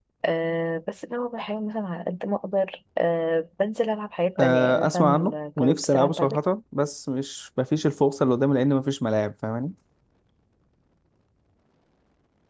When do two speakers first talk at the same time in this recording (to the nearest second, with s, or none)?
4 s